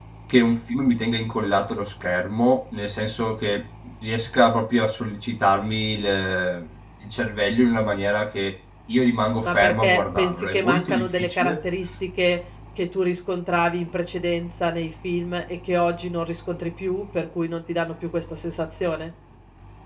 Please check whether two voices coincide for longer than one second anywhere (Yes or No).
Yes